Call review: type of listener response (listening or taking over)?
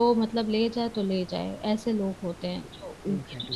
taking over